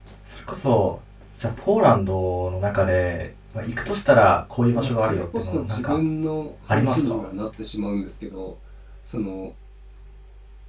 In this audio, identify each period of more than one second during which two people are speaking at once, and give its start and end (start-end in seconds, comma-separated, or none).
4.8-6.0